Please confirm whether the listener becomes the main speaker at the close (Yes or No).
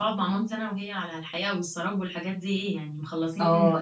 Yes